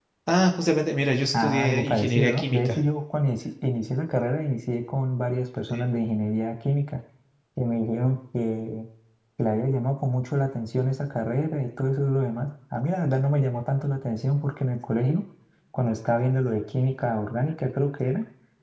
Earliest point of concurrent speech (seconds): 1.3 s

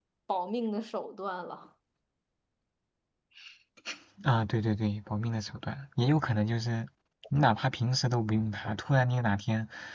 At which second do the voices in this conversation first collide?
none

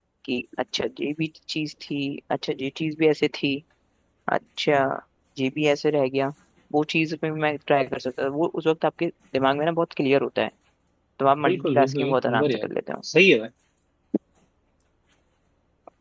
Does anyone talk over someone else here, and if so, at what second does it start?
11.4 s

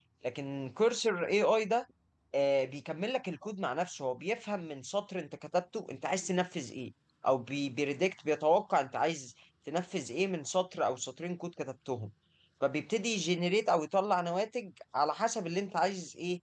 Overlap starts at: none

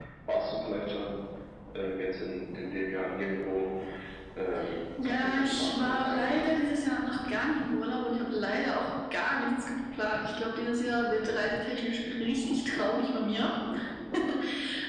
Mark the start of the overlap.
5.0 s

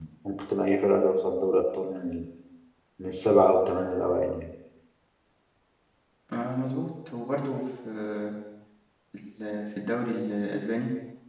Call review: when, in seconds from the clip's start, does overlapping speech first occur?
none

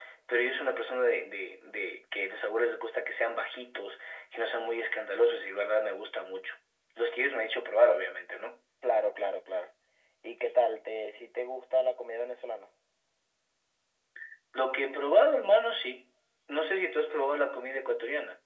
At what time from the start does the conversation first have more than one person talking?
none

